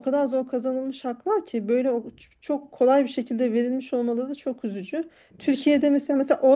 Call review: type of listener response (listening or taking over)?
listening